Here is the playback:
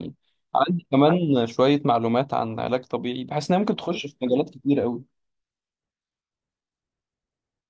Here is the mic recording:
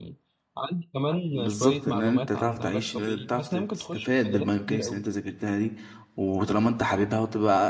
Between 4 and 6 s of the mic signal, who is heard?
both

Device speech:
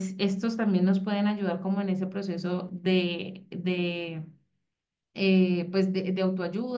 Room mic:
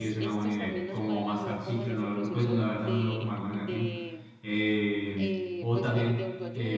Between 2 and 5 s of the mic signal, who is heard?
both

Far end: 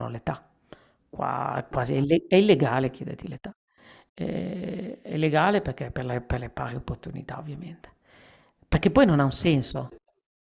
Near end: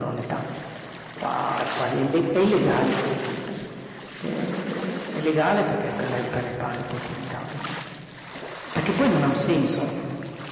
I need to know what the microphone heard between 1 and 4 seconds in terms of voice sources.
echo only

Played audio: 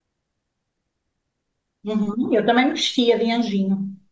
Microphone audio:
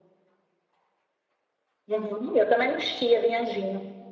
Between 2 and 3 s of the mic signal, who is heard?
echo only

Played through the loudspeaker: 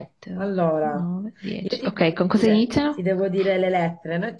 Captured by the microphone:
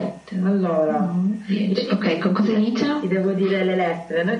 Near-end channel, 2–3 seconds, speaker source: echo only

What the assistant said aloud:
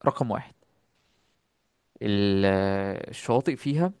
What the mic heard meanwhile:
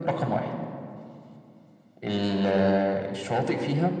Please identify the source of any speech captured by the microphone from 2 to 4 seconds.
echo only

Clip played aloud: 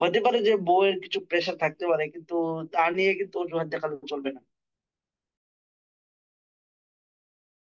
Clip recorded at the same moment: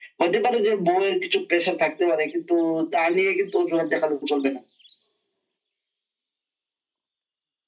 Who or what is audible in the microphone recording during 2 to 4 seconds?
echo only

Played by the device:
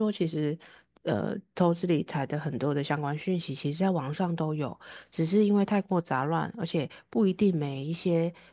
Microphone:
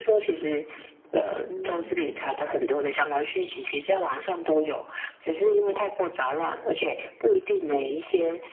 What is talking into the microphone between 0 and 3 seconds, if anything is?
both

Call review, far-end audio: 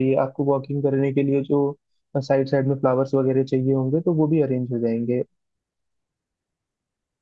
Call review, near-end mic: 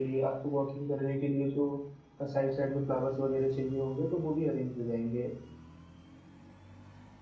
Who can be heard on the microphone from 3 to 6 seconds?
echo only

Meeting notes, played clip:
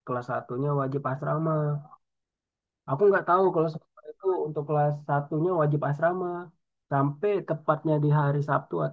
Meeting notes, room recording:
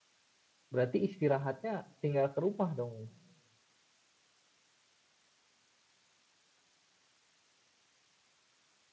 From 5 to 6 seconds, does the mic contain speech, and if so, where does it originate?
neither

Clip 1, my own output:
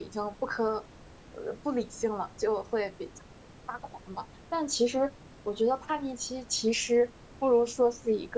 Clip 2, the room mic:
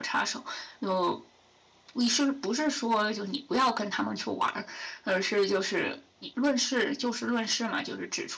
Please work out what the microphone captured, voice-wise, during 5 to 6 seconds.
user only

